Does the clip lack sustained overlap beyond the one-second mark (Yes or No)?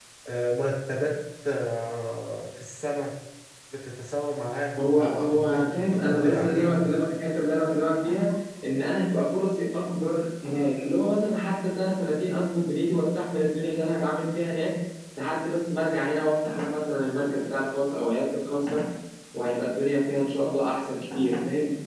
No